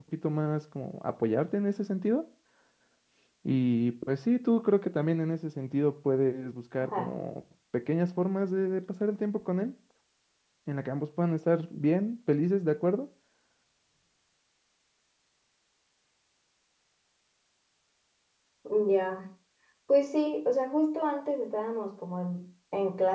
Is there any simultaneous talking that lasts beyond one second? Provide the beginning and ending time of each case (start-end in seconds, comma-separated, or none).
none